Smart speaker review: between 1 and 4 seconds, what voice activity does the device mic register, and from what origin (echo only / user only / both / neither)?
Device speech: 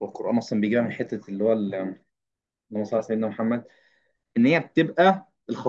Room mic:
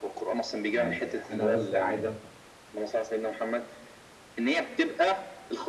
both